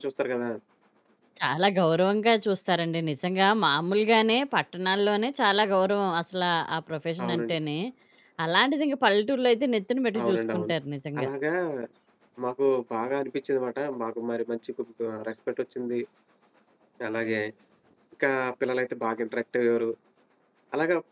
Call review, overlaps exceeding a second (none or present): none